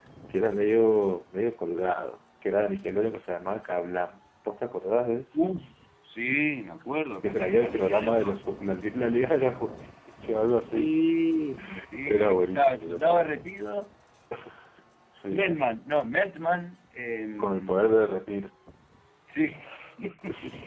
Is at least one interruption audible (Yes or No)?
Yes